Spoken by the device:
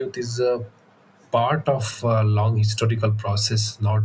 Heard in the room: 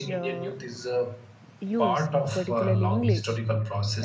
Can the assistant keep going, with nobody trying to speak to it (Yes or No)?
No